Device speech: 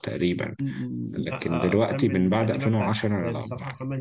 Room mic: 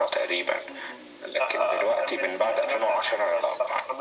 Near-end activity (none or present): none